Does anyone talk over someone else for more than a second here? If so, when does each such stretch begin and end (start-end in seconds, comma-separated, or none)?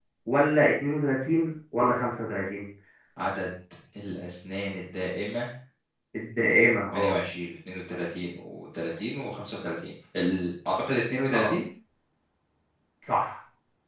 none